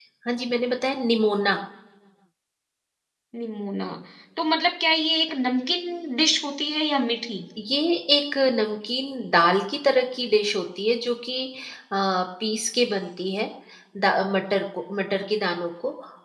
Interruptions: none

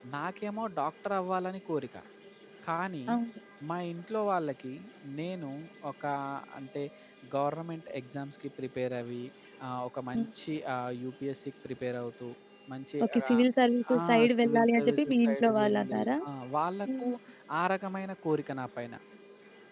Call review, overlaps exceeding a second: present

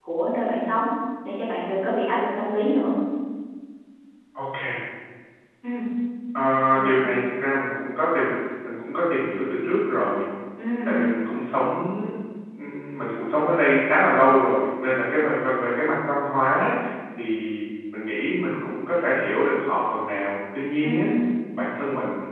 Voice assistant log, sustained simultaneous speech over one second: none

